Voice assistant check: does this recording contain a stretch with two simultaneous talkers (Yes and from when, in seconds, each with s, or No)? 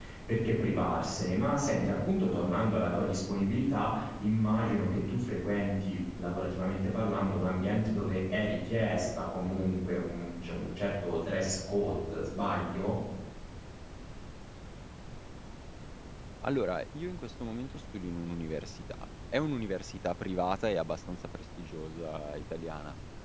No